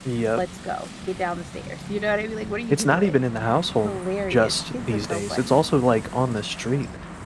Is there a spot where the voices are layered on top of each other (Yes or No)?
Yes